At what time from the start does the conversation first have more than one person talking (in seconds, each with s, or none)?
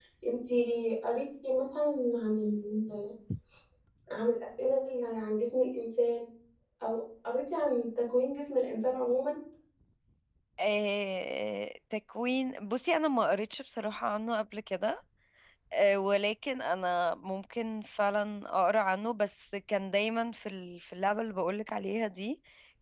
none